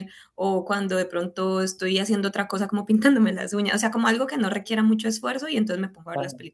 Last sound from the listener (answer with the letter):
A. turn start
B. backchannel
B